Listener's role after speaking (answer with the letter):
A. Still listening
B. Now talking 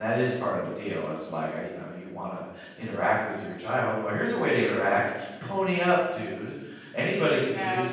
A